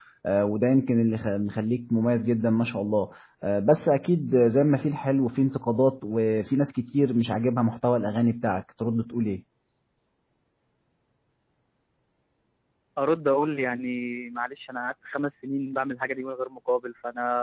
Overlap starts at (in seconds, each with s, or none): none